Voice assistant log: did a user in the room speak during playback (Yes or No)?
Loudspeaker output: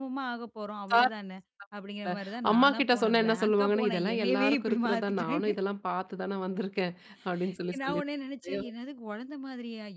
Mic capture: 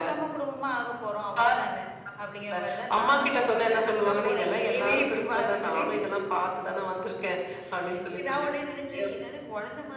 No